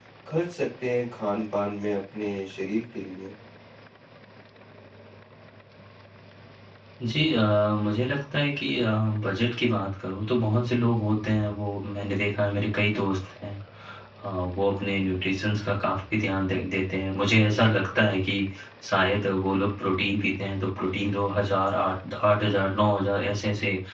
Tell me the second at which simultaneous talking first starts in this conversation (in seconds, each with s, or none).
none